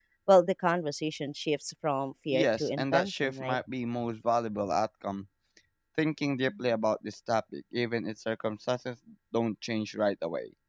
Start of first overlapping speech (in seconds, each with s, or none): 2.3 s